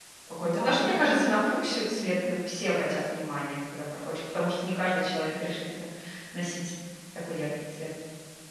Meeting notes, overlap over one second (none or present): present